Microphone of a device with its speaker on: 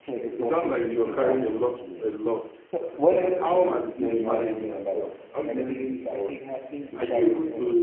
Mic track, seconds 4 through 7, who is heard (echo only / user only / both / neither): both